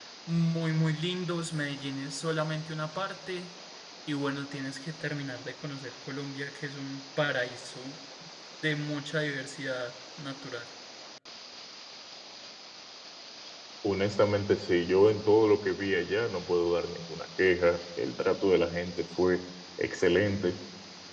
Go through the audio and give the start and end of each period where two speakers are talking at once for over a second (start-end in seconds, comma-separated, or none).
none